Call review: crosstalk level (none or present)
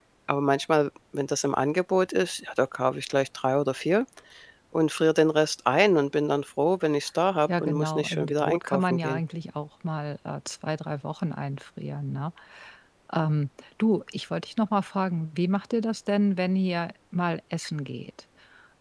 present